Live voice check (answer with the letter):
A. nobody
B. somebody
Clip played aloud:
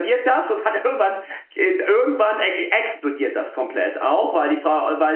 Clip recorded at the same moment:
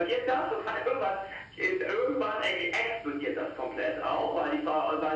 A